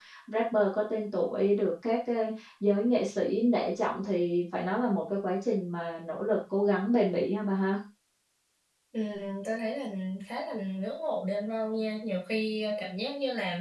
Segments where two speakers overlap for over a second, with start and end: none

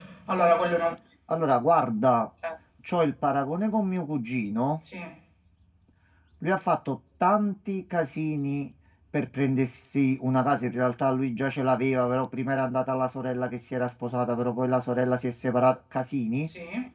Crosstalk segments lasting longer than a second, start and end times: none

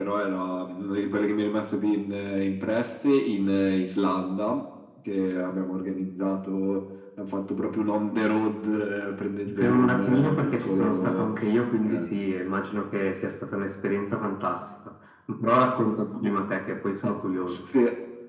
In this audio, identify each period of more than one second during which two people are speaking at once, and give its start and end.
9.5-11.3

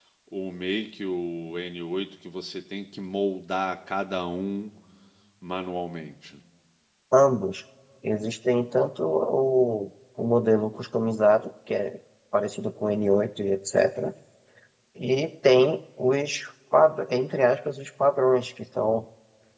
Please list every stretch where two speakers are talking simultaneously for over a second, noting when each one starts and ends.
none

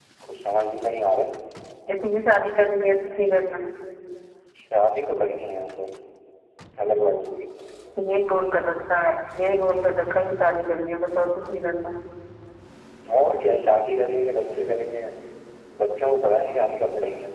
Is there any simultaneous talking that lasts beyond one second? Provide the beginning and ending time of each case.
none

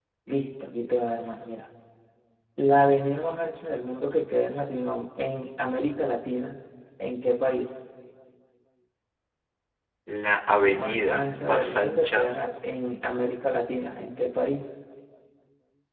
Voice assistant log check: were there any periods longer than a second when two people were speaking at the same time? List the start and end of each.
10.7-12.3

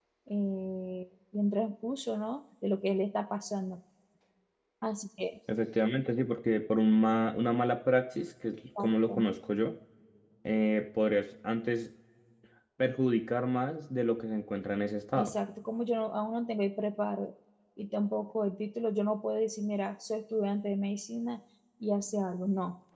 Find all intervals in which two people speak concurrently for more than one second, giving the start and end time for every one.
none

